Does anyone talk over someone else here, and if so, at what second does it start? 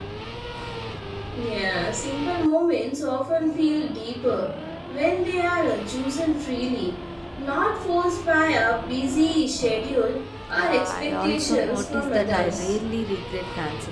10.5 s

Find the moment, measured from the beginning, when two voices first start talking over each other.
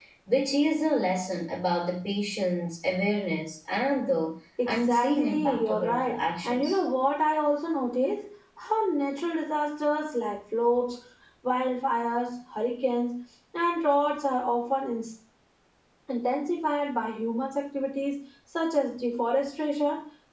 4.6 s

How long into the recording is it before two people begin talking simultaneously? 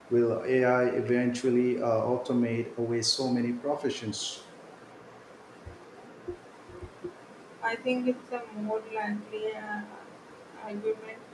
none

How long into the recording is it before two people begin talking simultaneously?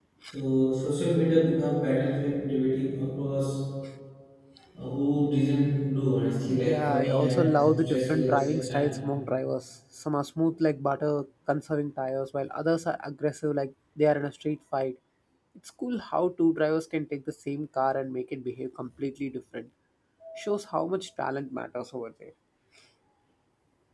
6.5 s

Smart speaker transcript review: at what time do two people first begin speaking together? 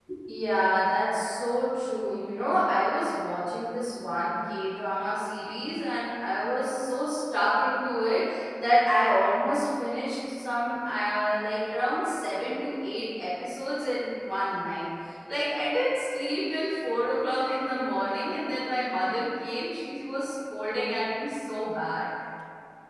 none

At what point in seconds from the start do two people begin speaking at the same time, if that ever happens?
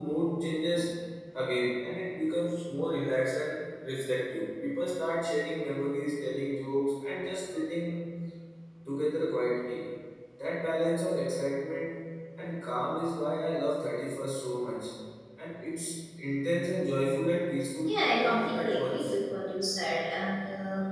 17.9 s

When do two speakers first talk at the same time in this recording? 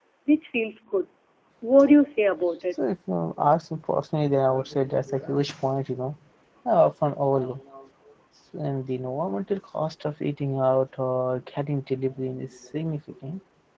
none

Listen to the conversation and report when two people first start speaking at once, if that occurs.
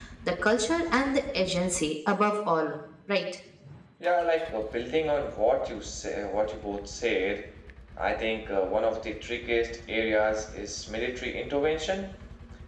none

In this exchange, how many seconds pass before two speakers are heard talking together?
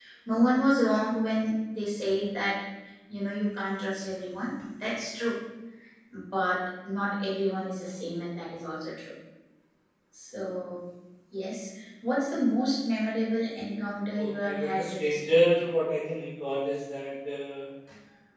14.2 s

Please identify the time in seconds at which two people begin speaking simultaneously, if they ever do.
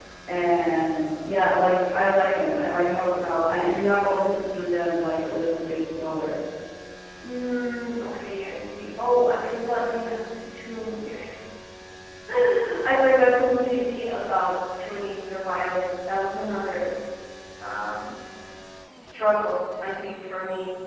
none

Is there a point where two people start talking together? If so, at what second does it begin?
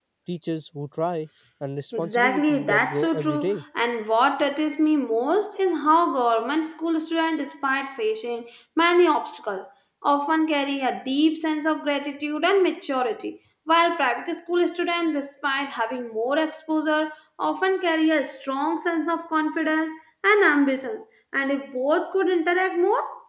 1.9 s

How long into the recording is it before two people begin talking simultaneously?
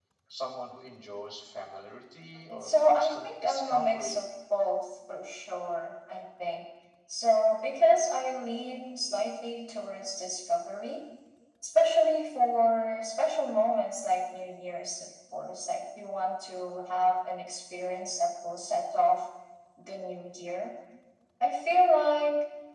2.5 s

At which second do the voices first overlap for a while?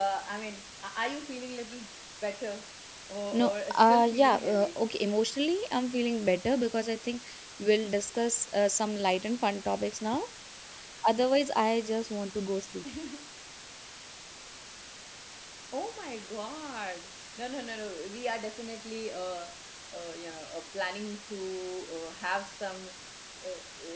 3.3 s

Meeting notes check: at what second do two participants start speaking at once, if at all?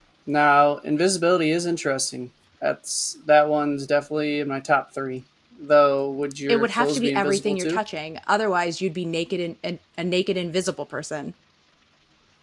6.5 s

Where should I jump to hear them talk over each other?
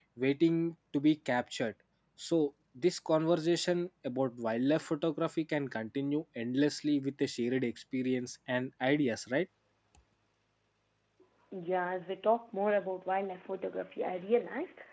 none

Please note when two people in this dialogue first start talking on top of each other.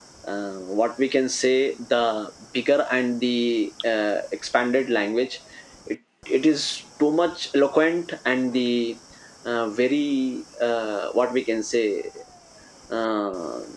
none

